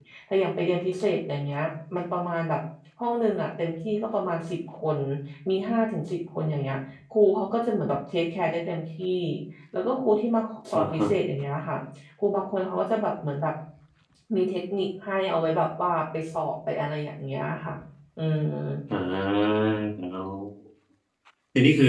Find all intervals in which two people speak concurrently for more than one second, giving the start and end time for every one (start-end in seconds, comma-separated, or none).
none